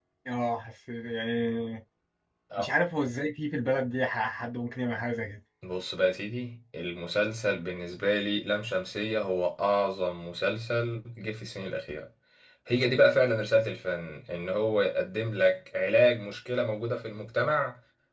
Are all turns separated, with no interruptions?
Yes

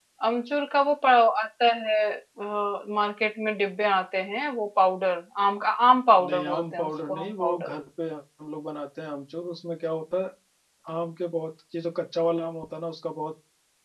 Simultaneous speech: Yes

